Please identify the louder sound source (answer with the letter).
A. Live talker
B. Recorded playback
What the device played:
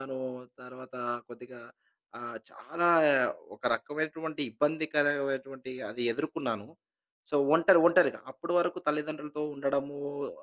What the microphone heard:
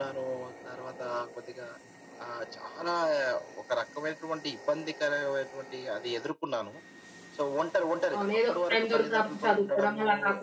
A